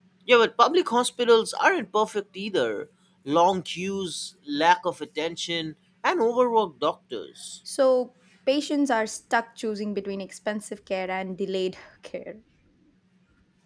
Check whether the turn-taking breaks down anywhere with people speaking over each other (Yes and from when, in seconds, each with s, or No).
No